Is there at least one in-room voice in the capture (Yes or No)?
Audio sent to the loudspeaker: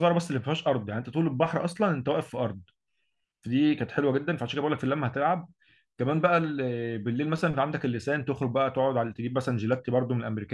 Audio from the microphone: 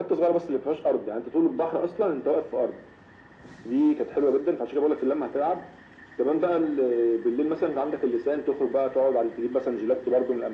No